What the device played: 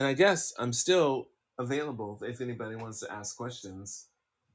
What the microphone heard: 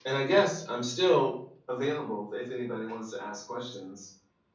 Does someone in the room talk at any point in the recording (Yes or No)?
No